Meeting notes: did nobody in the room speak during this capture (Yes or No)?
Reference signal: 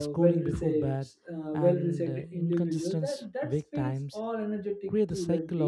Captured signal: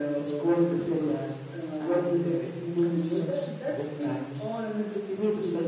Yes